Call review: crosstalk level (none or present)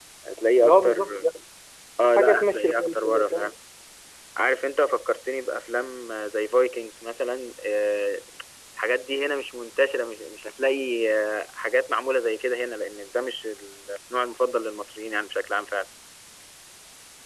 present